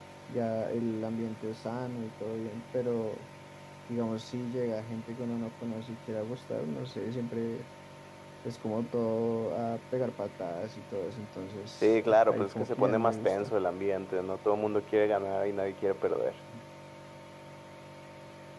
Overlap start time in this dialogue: 11.8 s

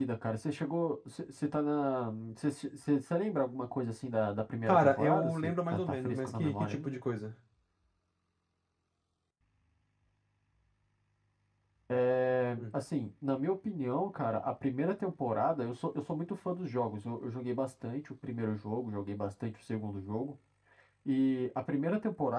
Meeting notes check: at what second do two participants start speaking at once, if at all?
4.7 s

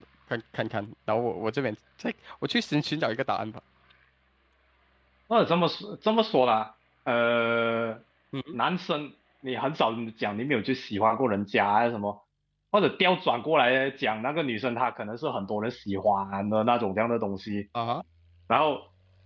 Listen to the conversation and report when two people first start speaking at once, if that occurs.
none

